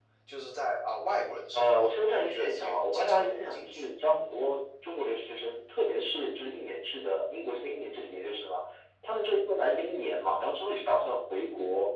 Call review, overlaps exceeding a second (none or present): present